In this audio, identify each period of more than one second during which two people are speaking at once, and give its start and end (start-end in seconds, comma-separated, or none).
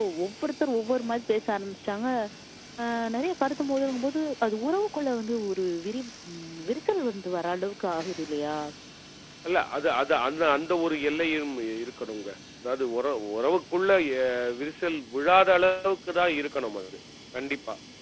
none